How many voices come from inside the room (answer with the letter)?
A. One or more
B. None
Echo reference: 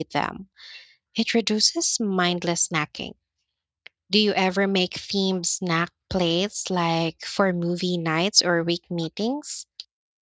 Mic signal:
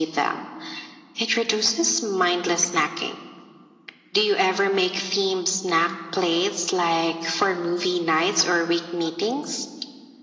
B